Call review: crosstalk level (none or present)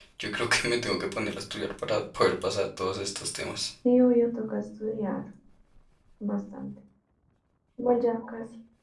none